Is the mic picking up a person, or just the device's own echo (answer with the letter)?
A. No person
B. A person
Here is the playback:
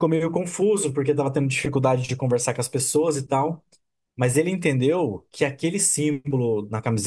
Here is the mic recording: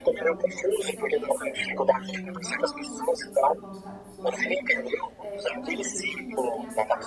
B